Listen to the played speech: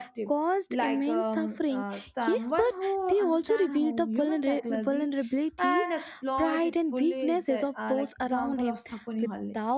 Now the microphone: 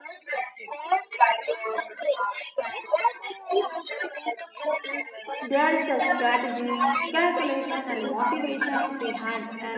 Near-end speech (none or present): present